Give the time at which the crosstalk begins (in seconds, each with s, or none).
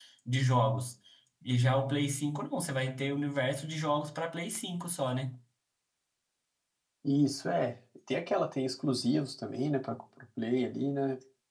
none